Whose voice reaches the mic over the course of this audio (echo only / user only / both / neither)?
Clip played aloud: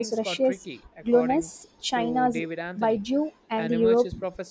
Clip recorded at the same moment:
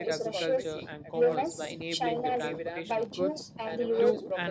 both